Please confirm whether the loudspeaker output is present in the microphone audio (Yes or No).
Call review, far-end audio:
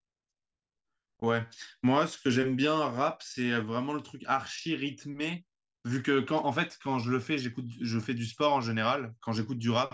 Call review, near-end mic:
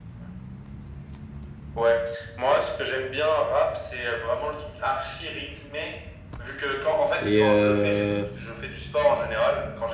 Yes